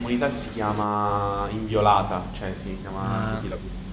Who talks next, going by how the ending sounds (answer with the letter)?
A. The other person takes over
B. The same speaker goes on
A